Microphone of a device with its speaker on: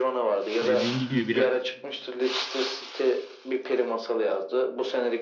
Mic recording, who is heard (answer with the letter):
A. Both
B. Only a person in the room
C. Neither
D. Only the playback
A